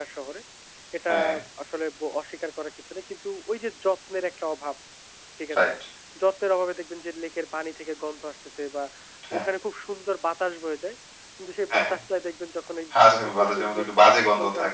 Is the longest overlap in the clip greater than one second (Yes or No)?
Yes